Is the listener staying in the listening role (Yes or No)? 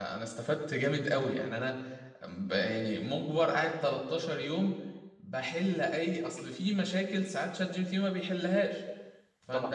Yes